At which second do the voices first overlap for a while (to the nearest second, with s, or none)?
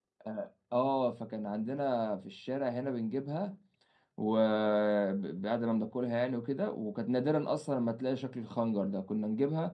none